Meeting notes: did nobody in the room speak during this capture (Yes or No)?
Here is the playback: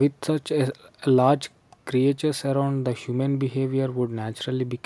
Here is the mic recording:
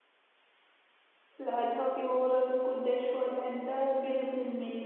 No